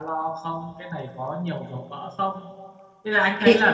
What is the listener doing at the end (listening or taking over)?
listening